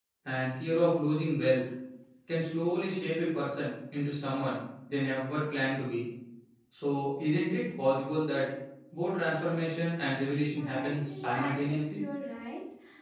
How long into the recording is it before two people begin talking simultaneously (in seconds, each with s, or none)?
10.6 s